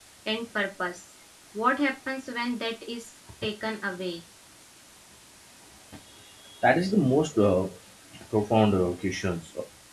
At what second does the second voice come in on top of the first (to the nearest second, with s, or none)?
none